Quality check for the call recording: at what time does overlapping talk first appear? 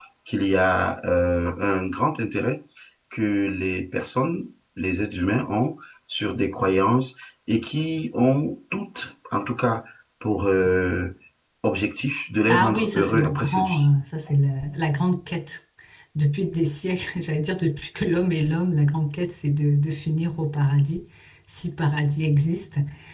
12.5 s

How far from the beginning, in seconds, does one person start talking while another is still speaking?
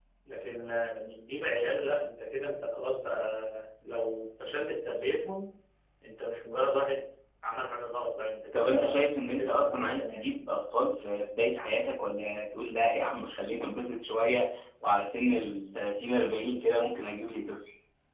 8.5 s

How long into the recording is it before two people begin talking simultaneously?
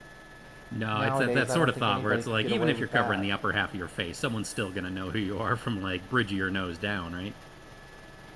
0.9 s

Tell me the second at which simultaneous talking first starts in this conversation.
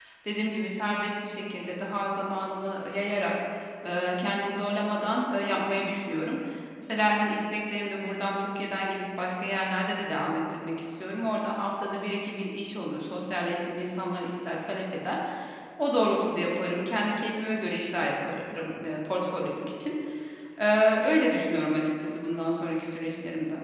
none

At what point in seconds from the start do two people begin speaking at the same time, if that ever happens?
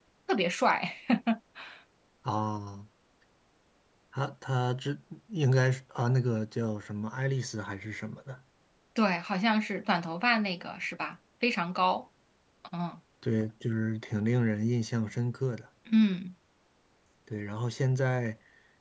none

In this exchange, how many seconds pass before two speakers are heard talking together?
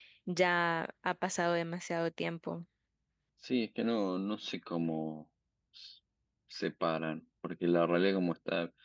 none

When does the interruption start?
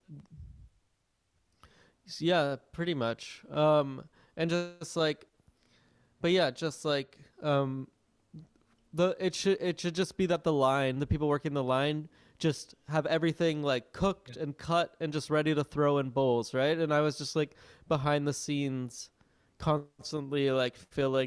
none

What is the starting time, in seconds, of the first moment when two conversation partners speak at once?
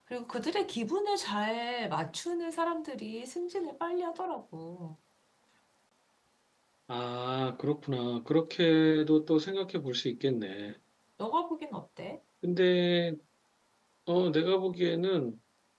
none

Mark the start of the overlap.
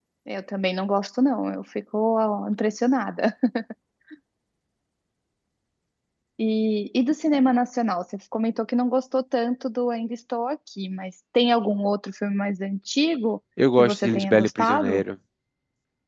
13.6 s

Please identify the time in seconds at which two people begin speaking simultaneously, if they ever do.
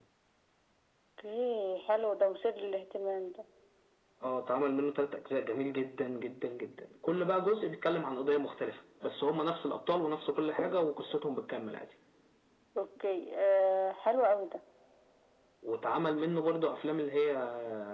none

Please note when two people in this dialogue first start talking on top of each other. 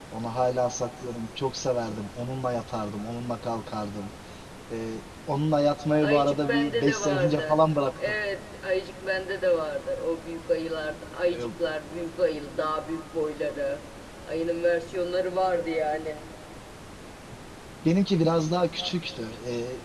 6.0 s

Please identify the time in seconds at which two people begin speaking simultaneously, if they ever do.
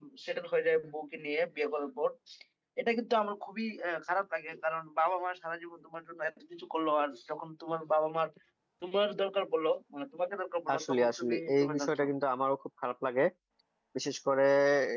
10.7 s

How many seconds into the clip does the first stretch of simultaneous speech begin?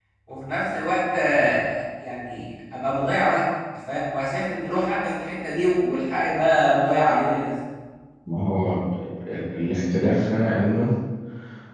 none

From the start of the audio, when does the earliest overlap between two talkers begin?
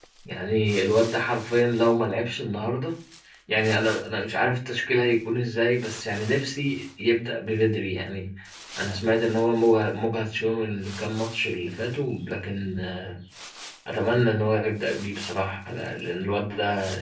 none

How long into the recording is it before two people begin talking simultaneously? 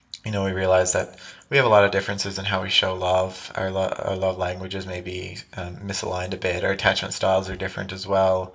none

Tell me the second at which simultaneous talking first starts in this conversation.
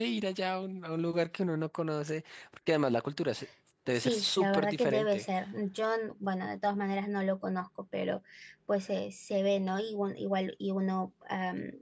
3.9 s

